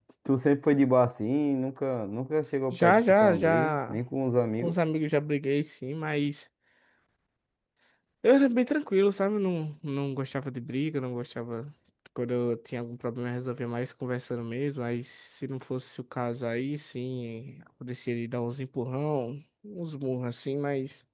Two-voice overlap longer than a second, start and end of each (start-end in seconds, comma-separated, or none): 2.7-4.0